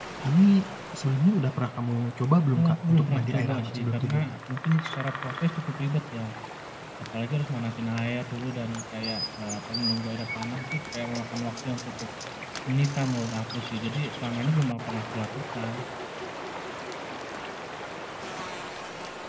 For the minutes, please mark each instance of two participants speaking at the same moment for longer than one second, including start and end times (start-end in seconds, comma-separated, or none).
2.6-4.2